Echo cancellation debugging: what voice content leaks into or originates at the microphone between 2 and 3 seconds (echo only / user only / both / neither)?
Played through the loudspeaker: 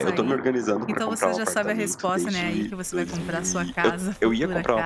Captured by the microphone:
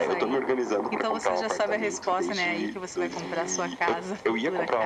echo only